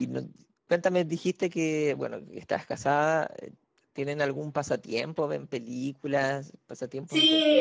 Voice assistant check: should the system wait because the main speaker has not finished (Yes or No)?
No